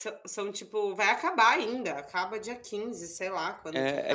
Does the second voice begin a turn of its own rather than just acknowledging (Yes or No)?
Yes